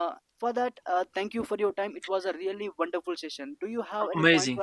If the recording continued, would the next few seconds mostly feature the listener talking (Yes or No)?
Yes